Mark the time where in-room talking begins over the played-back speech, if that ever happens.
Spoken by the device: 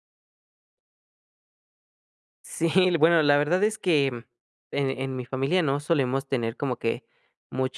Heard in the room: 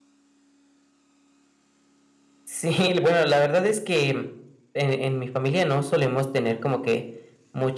none

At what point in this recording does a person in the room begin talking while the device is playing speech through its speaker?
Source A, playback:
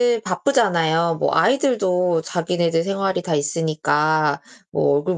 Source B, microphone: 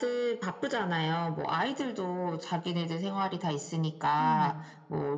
4.2 s

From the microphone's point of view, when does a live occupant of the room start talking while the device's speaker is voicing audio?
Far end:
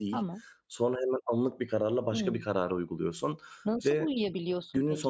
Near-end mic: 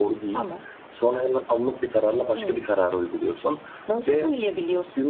none

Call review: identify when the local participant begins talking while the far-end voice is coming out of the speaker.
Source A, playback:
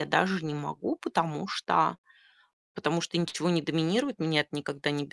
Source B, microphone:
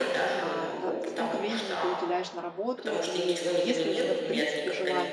0.4 s

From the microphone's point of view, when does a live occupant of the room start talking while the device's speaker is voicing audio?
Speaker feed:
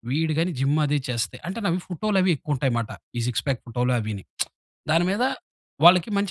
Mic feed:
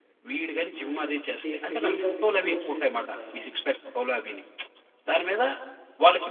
0.7 s

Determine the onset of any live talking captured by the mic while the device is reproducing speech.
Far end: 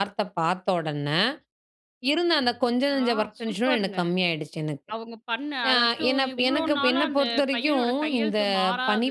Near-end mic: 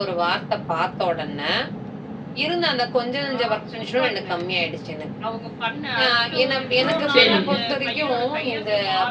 7.1 s

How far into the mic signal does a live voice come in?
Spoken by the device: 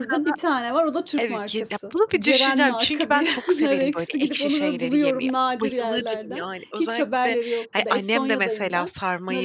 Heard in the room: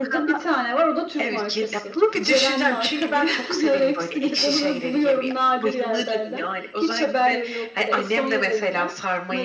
none

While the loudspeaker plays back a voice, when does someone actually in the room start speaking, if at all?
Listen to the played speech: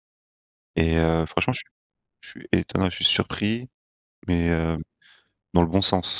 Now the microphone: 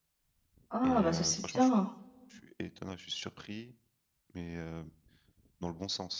0.7 s

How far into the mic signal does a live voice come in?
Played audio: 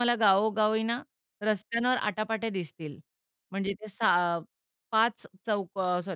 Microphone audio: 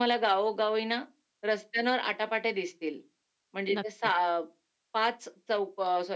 3.7 s

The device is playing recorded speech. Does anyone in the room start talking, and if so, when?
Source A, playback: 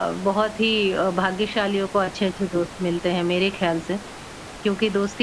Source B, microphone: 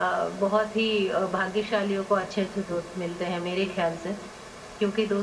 none

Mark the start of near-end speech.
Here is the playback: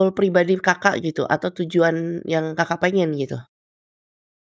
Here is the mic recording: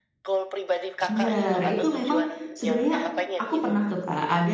1.1 s

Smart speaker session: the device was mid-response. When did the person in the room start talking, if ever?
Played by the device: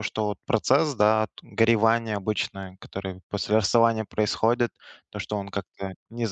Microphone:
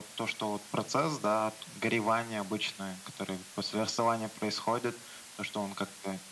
none

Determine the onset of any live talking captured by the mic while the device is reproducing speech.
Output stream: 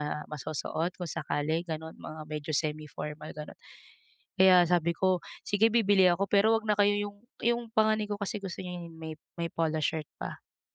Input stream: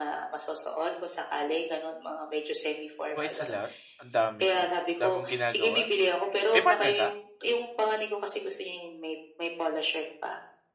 3.1 s

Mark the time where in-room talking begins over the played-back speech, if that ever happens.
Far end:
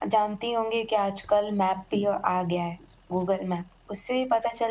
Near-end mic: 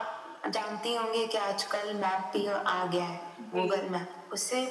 3.4 s

